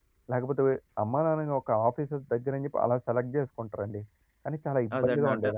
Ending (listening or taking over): taking over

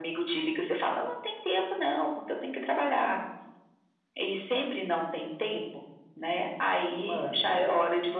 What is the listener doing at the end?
listening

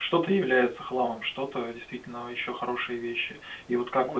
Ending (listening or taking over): listening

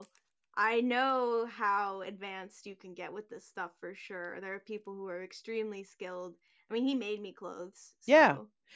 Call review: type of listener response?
taking over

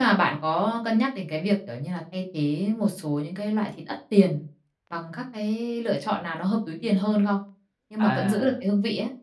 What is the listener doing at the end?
listening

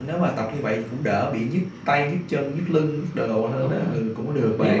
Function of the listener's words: taking over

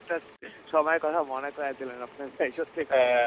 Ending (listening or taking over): taking over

